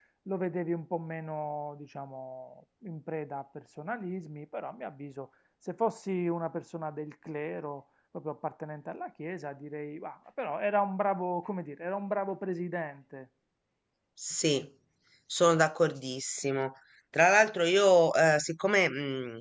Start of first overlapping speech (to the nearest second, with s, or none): none